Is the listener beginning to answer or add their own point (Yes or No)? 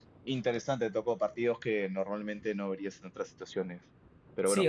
Yes